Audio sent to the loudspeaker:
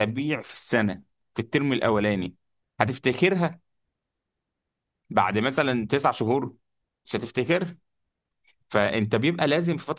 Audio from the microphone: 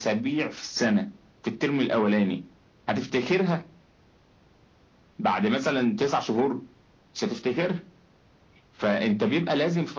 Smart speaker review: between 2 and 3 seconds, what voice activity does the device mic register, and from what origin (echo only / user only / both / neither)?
echo only